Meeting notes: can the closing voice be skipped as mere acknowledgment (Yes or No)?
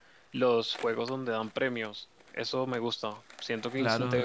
Yes